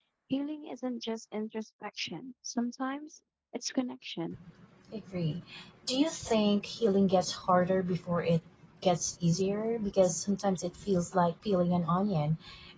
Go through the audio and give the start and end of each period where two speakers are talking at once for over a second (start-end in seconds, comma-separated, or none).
none